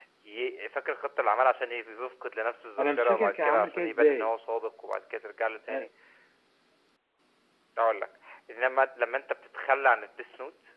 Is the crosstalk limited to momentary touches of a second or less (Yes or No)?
No